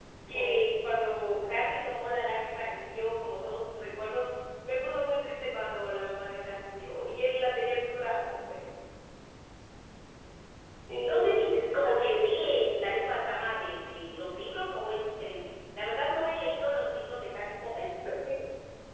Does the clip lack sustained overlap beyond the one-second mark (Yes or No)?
No